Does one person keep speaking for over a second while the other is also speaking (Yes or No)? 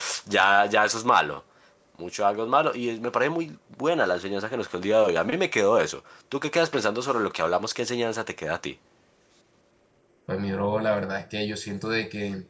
No